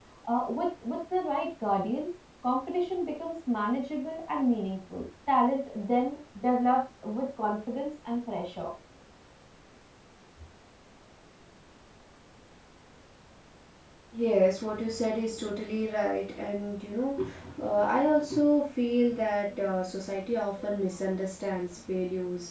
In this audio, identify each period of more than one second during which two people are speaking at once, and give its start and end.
none

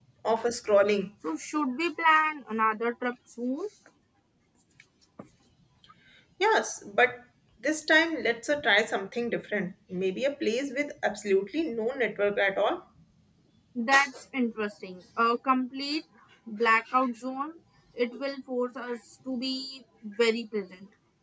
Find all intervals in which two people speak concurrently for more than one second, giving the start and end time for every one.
none

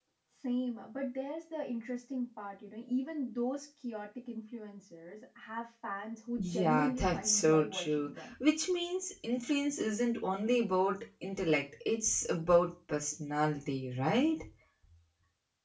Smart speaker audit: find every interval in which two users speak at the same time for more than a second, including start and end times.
6.4-8.3

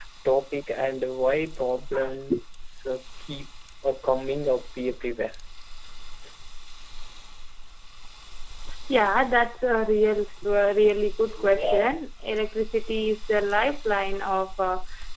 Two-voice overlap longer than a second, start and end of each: none

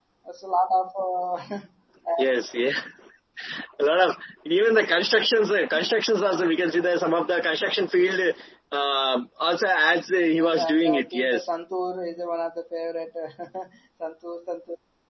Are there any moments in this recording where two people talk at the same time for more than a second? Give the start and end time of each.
10.2-11.5

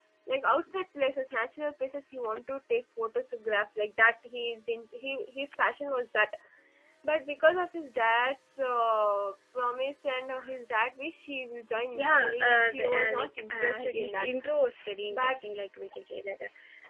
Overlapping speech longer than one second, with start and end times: 12.0-14.3

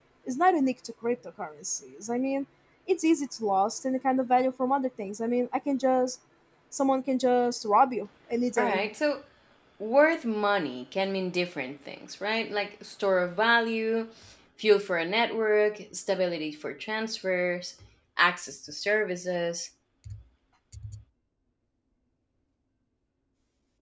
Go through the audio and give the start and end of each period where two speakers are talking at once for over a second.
none

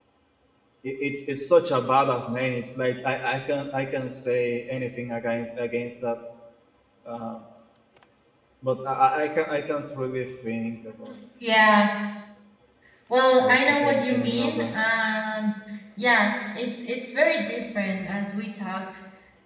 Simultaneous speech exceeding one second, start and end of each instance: 13.4-14.8

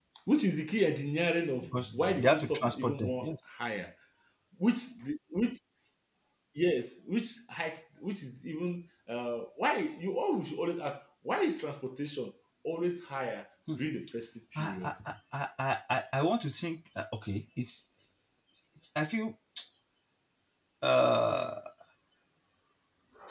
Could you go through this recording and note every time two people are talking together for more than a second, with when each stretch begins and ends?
1.6-3.3

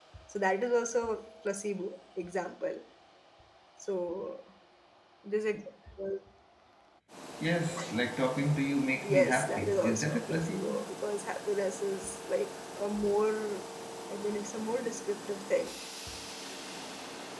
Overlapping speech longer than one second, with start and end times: 9.0-10.8

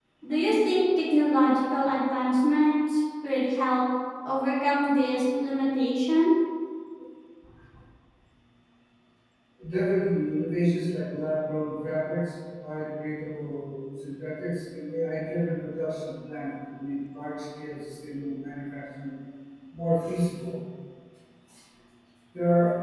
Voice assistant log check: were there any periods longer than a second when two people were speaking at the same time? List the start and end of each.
none

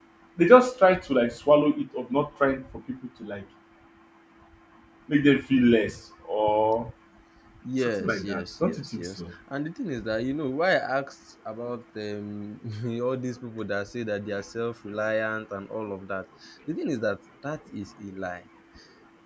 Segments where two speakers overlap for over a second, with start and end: 8.0-9.2

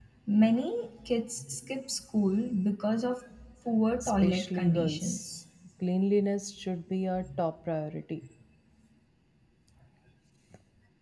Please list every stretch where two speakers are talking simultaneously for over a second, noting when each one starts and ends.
4.0-5.3

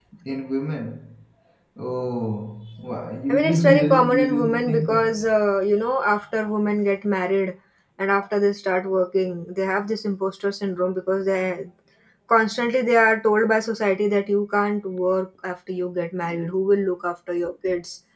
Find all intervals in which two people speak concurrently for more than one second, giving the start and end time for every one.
3.3-5.2

